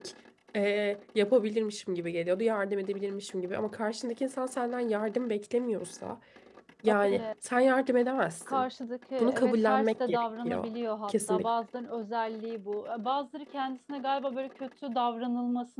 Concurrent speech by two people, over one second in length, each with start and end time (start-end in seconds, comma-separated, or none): 9.2-10.7